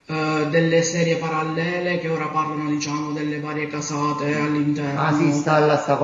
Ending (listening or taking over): taking over